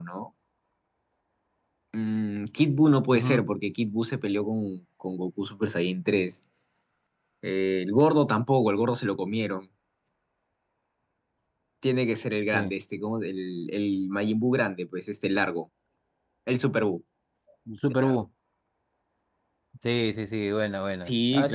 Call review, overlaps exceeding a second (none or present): none